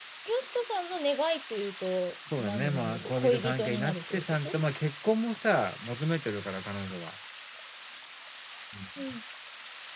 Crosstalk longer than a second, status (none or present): present